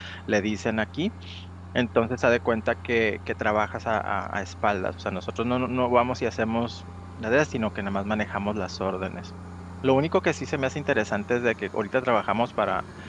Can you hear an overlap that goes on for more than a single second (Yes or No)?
No